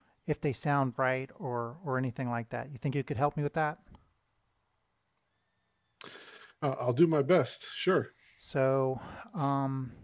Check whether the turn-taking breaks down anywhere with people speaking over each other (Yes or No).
No